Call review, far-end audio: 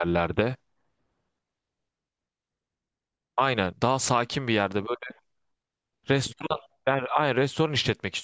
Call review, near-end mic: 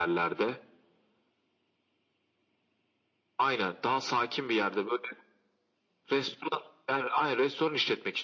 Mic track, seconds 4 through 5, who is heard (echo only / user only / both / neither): echo only